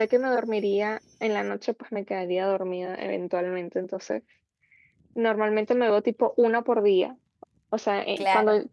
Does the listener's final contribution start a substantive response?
No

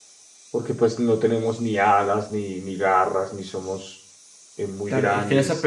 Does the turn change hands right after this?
Yes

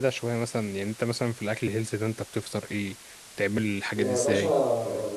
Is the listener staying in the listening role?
No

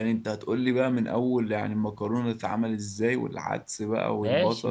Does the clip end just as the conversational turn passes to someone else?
Yes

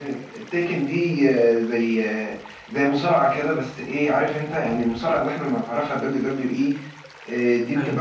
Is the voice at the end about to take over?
No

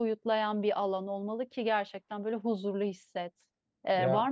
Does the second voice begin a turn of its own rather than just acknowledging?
No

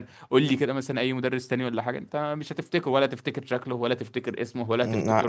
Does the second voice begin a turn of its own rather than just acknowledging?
Yes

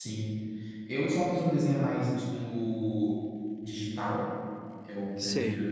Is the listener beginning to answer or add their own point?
No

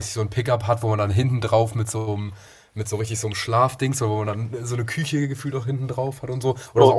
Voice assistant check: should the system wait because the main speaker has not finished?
Yes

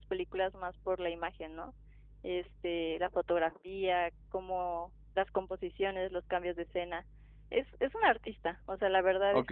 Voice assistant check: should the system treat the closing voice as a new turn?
Yes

